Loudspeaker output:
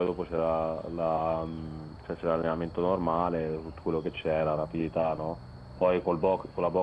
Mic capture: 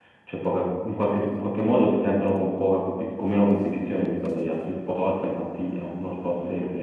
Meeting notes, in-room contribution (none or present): present